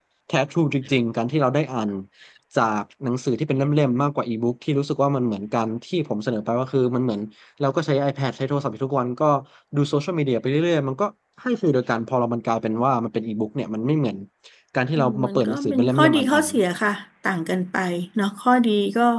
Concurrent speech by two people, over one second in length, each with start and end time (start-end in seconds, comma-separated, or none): 14.9-16.5